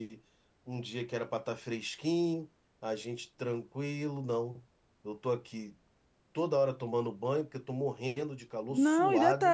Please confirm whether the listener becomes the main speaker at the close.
Yes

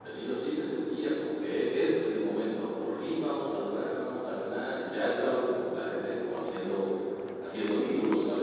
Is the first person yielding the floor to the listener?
Yes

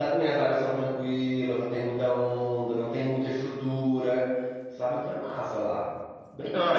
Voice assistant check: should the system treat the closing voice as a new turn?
Yes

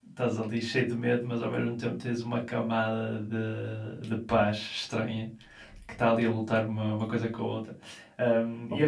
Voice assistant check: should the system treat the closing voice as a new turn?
No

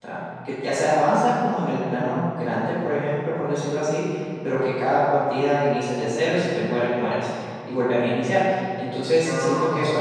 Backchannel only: Yes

